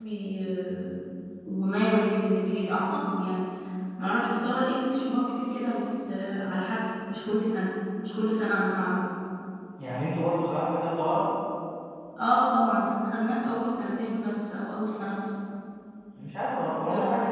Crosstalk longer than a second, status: none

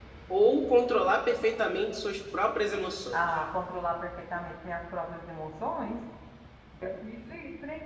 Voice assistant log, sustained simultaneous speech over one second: none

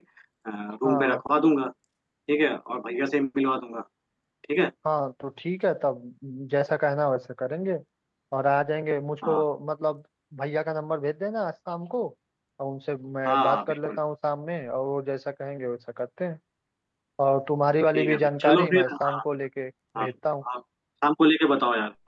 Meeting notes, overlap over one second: present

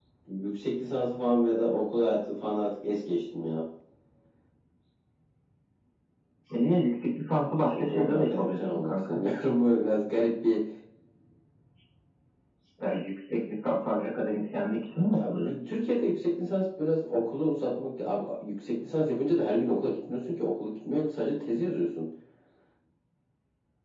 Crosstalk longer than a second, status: present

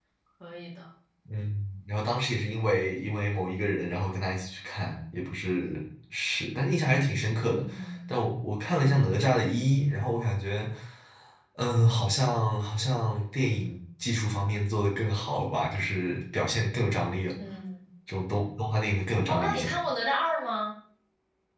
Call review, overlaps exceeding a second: none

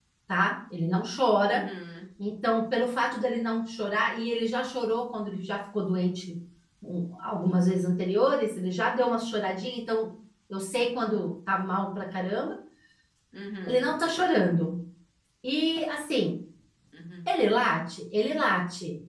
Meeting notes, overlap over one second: none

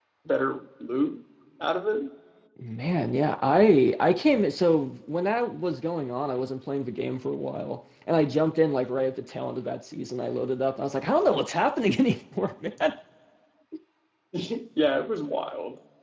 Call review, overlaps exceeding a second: none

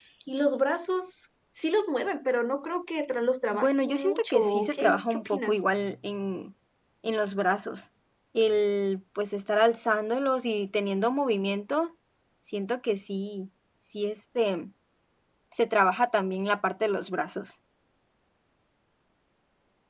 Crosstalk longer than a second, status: present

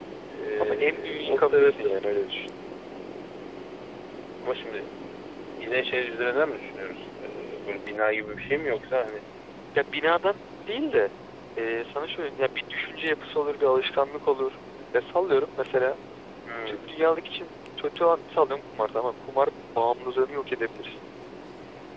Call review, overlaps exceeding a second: present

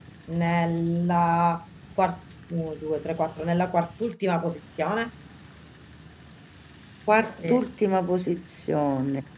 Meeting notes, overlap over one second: none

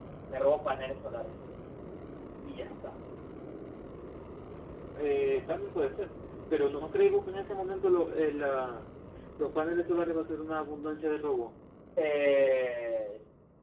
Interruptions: none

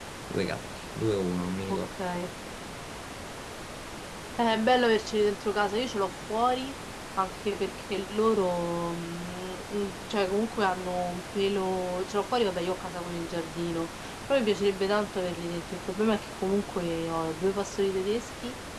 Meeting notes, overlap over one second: none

